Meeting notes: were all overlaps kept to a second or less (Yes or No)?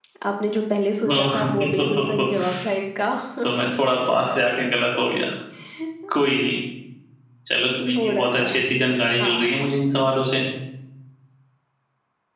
No